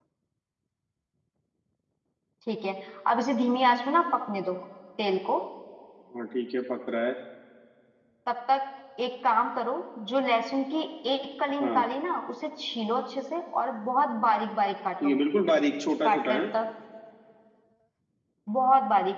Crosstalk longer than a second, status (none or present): none